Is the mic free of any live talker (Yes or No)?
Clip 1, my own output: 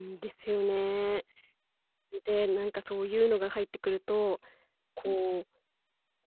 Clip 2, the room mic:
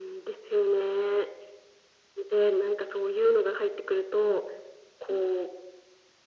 Yes